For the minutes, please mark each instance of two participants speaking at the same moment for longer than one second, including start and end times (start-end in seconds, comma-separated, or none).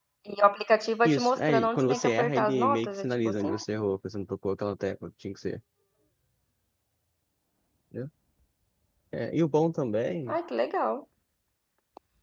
1.0-3.5